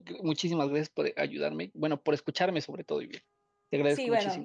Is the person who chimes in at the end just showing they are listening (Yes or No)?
No